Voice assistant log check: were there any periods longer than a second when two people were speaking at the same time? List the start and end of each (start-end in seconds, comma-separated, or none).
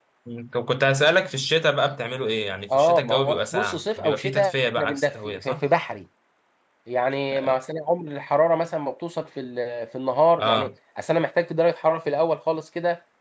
2.7-5.6